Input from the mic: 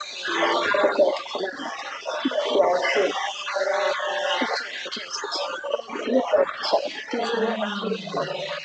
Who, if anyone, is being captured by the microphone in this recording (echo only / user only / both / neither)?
both